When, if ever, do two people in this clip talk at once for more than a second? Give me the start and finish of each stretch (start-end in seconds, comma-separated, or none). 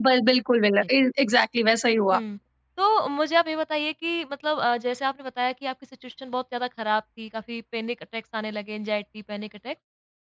none